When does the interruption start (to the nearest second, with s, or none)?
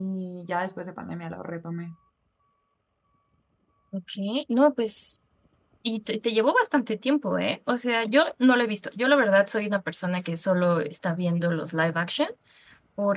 none